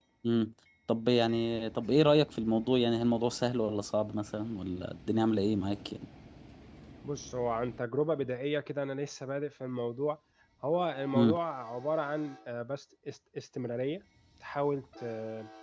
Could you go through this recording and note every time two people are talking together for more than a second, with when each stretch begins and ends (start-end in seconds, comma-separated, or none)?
none